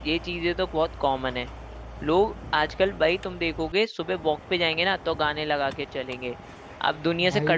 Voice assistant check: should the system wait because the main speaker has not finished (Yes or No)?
Yes